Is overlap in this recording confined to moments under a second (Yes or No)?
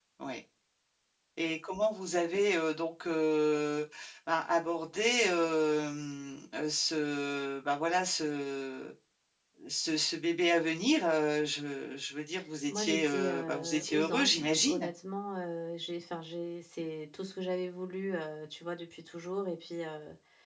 No